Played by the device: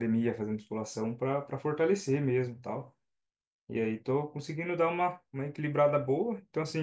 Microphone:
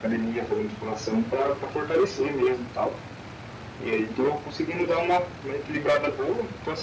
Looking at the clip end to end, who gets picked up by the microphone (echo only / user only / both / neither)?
echo only